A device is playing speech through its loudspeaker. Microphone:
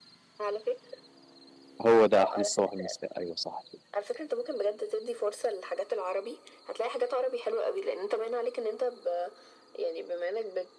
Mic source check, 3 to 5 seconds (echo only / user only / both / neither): both